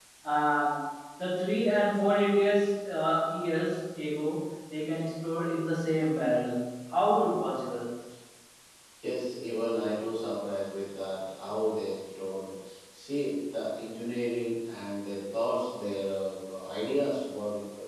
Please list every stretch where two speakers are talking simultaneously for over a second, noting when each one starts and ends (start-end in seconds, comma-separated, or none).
none